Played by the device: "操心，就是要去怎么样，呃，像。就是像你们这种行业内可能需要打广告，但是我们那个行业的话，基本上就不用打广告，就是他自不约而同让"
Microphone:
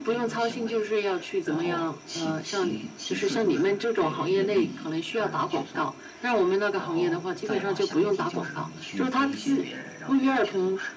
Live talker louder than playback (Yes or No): No